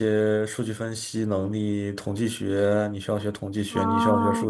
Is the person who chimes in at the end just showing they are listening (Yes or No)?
Yes